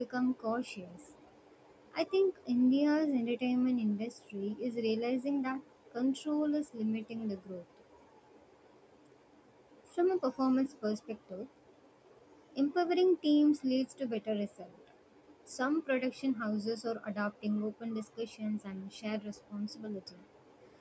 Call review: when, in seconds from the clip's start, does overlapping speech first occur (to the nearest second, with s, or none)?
none